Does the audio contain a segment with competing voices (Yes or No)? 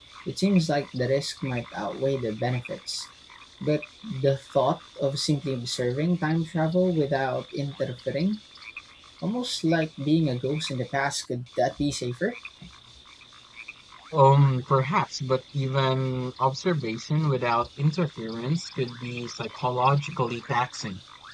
No